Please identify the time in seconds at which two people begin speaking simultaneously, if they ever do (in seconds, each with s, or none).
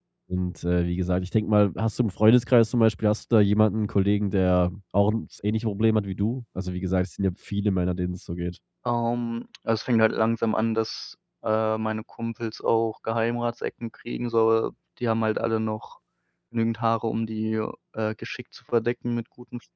none